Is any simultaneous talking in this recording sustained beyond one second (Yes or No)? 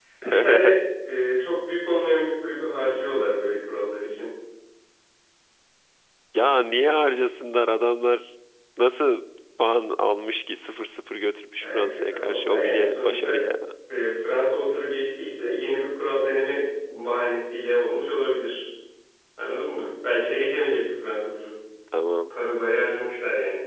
Yes